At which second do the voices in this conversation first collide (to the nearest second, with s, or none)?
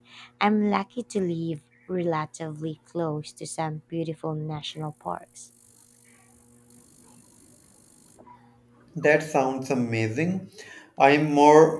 none